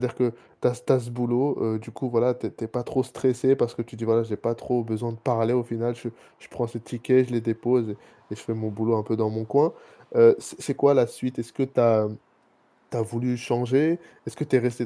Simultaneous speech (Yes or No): No